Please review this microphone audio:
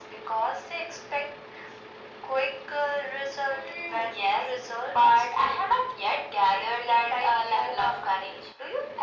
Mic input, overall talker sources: echo only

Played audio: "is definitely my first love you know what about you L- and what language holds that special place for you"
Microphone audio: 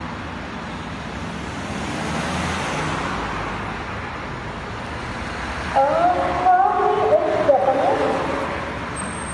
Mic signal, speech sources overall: user only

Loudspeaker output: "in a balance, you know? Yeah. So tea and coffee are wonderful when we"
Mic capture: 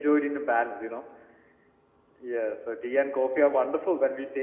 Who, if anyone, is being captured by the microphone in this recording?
echo only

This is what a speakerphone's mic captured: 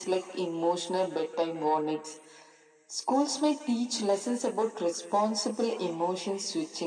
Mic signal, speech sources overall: echo only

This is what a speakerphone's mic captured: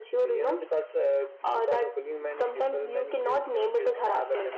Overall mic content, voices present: echo only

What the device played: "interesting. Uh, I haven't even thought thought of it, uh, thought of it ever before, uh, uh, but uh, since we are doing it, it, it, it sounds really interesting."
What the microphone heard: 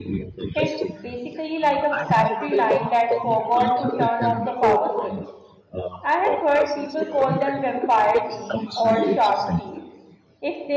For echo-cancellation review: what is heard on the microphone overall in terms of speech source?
both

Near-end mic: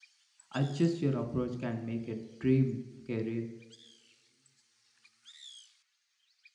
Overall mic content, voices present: user only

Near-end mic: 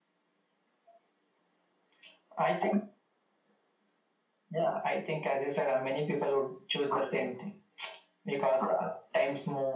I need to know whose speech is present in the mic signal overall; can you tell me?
echo only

